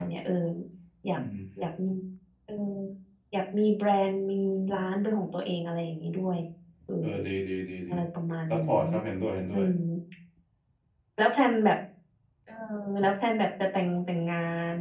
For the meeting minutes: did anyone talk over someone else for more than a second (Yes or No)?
No